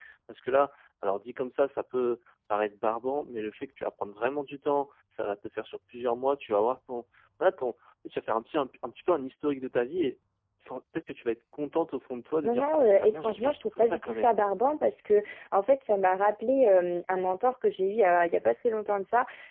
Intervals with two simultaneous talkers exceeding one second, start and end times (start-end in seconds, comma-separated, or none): 12.4-14.3